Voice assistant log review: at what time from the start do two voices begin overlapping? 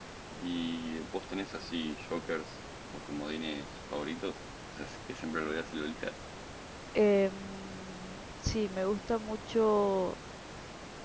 none

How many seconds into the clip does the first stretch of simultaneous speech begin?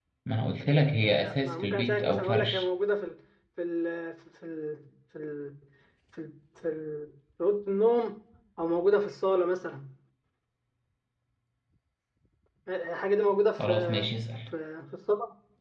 1 s

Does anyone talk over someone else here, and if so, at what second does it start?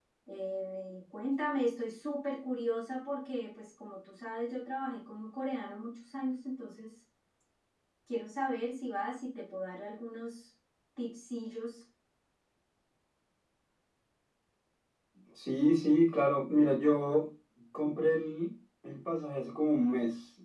none

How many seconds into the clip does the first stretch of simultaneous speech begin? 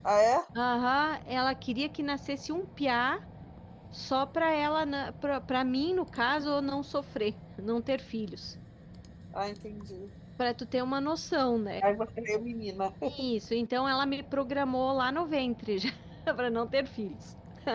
none

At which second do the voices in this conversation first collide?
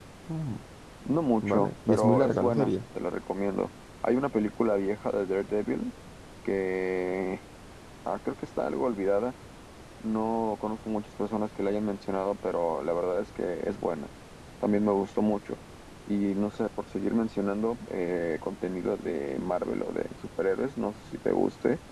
1 s

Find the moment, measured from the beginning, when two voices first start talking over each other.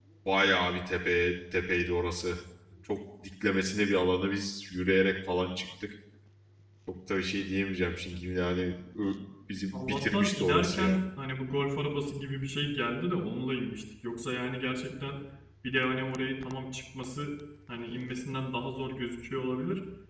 10 s

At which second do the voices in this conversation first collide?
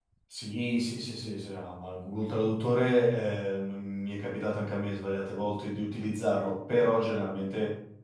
none

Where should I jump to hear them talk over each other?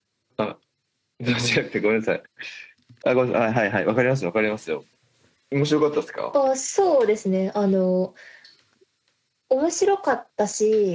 none

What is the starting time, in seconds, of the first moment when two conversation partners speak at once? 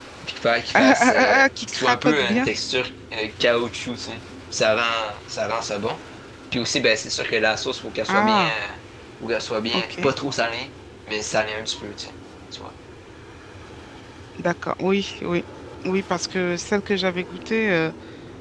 1 s

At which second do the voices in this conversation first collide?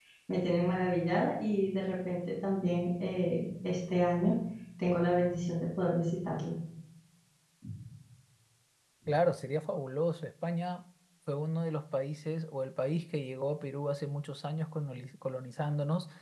none

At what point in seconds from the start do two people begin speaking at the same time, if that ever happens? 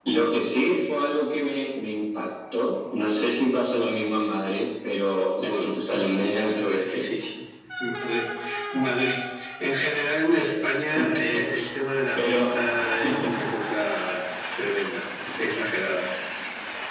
5 s

